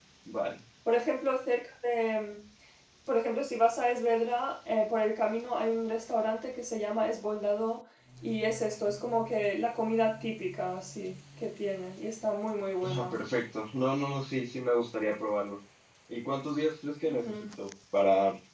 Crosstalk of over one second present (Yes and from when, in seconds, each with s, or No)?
No